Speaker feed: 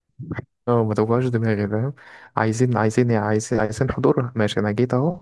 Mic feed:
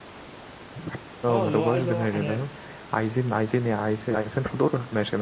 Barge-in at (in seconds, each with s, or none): 1.3 s